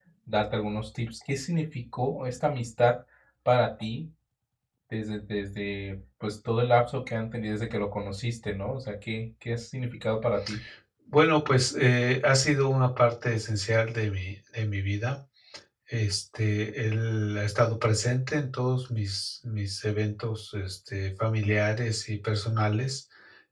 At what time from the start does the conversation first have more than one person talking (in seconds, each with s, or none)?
none